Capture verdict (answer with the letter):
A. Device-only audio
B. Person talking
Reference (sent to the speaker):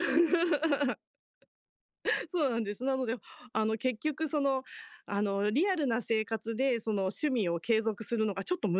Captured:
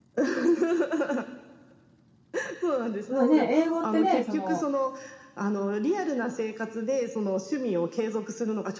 B